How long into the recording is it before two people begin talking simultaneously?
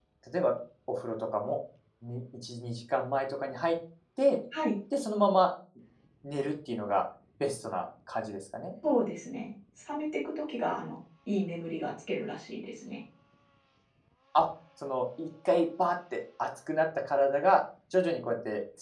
none

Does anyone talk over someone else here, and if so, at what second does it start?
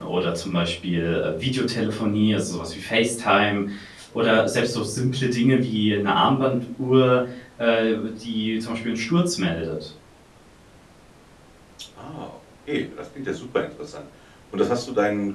none

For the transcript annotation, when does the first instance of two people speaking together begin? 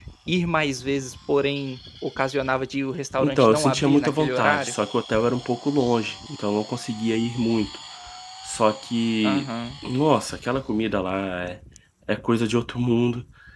3.2 s

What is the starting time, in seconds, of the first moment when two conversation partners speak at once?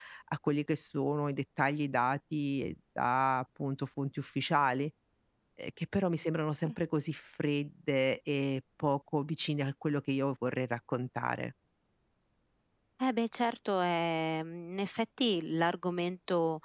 none

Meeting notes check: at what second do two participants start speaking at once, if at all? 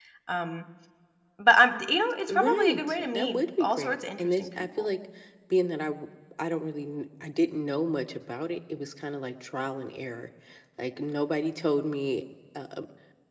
2.3 s

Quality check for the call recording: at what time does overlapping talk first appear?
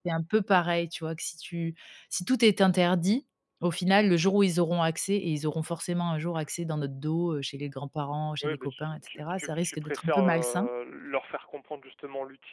8.4 s

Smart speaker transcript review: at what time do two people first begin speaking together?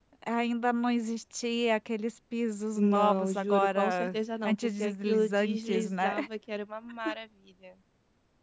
2.8 s

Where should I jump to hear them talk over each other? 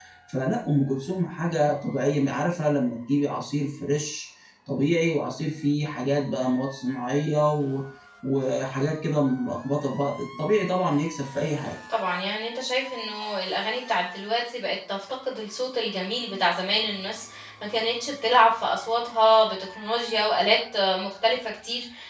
none

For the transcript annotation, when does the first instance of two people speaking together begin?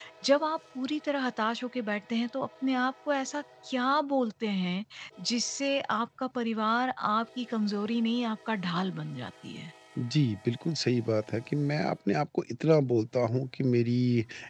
none

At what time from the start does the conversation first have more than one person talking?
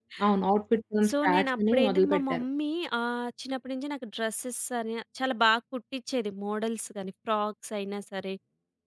1.1 s

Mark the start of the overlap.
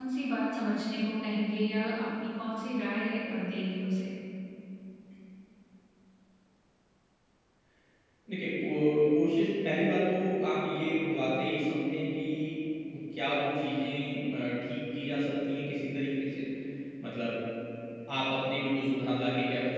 none

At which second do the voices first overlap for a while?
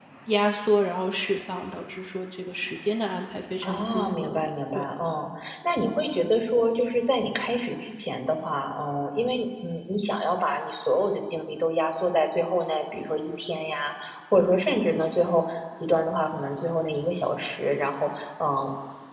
3.6 s

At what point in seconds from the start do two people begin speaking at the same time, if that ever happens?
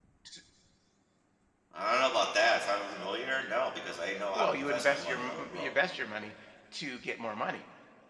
4.3 s

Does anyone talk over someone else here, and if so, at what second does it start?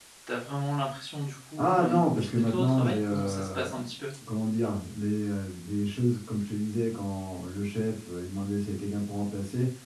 1.6 s

